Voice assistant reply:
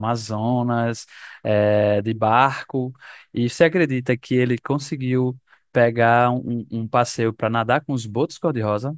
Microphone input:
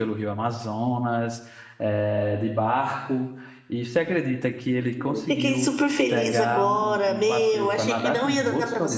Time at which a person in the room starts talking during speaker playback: 5 s

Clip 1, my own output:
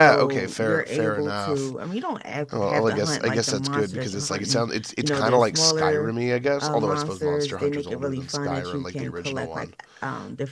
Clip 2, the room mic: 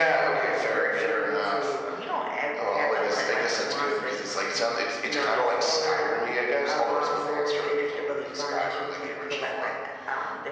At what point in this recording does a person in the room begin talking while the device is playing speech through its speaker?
none

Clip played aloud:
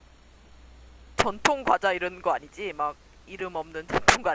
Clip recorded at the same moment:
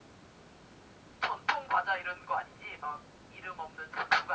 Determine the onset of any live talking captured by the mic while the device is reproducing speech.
none

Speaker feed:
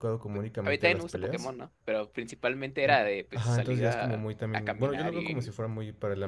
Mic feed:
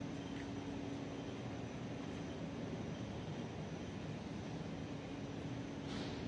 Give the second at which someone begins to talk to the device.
none

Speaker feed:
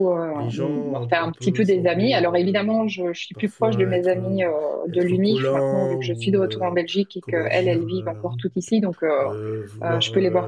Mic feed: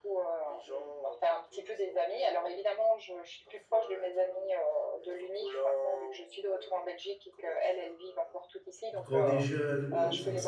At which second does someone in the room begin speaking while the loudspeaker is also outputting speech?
9 s

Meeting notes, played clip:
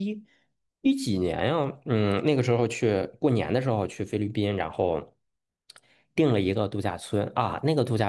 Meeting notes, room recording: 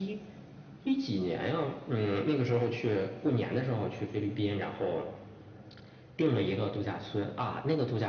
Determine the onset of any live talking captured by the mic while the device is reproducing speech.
none

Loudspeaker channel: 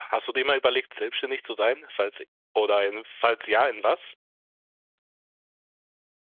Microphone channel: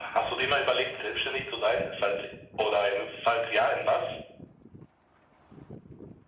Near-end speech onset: none

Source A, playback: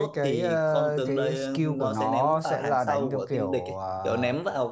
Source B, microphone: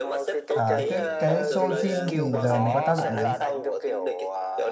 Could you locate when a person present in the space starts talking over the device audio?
1 s

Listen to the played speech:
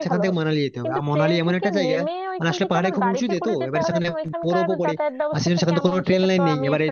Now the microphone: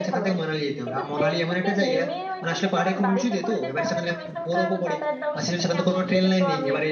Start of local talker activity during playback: none

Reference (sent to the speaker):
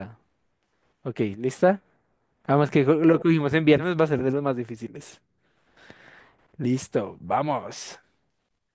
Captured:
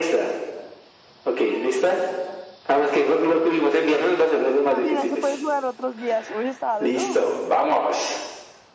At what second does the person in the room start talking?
5 s

